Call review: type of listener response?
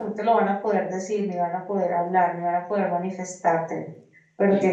listening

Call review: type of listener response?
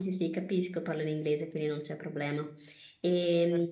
listening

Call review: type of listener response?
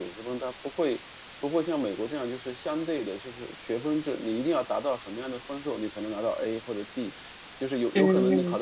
listening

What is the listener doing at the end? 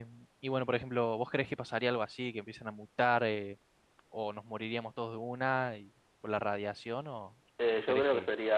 taking over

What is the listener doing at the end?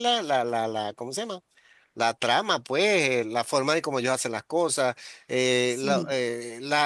listening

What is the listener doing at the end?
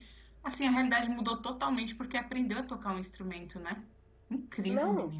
taking over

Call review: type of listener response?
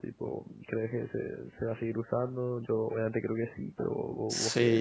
taking over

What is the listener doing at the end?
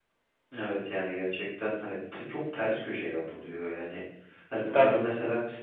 listening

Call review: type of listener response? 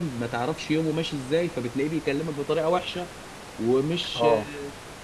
listening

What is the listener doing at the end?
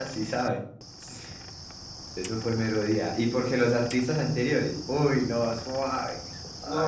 taking over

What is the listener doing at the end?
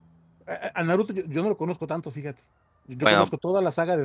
listening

